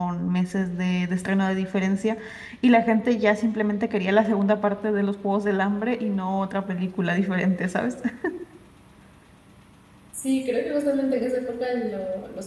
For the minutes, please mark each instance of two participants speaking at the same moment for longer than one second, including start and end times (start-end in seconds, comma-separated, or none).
none